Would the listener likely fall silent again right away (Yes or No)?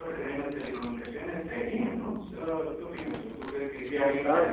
No